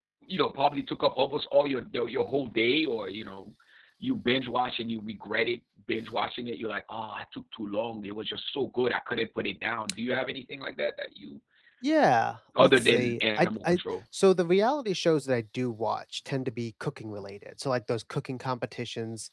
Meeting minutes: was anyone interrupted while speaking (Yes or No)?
Yes